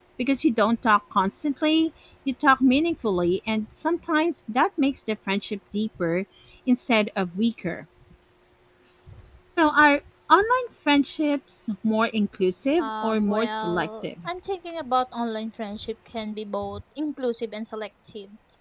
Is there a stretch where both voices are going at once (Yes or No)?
Yes